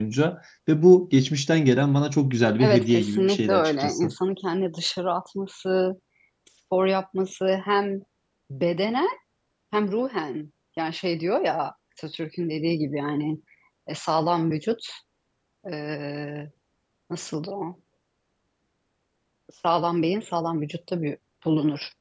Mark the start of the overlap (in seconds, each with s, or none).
2.6 s